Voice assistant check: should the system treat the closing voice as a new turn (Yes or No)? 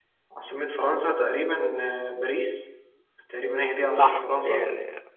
Yes